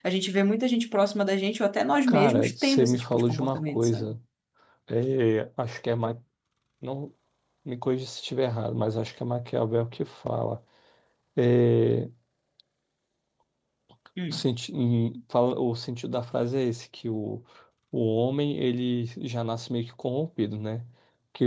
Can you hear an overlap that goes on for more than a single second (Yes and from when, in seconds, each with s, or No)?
Yes, from 2.1 s